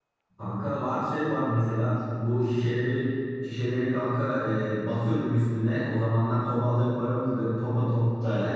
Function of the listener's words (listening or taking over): listening